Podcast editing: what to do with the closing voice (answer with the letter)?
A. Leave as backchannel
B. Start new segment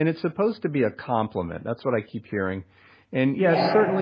A